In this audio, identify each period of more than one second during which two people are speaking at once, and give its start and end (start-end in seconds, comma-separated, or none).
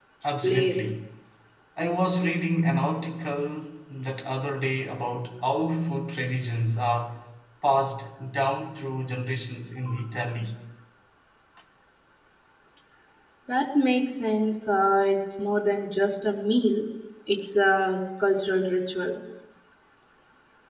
none